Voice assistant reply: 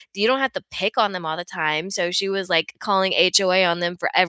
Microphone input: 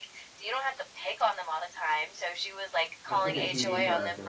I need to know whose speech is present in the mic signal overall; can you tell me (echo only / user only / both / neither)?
both